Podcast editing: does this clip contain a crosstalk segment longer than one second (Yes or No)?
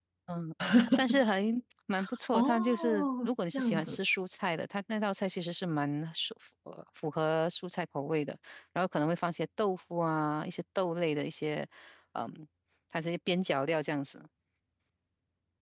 Yes